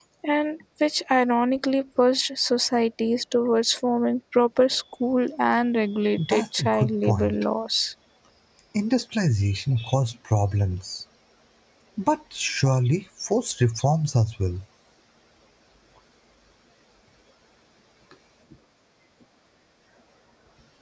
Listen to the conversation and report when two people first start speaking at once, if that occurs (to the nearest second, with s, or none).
6 s